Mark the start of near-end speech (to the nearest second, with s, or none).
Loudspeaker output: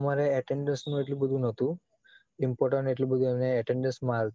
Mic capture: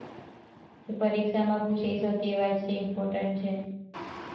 1 s